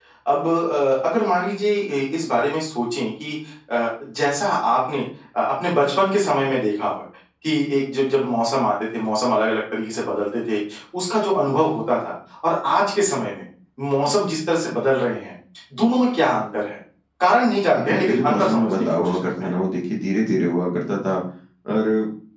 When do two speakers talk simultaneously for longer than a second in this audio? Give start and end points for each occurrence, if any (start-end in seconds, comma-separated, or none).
17.8-19.5